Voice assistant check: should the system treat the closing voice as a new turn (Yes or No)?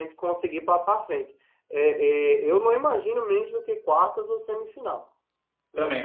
No